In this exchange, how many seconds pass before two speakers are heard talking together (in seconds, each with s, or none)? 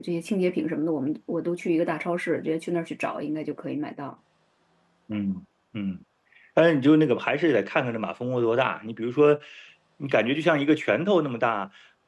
none